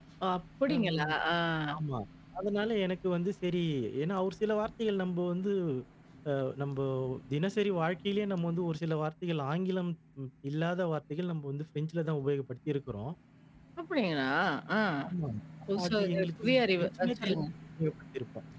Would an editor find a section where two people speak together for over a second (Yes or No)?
Yes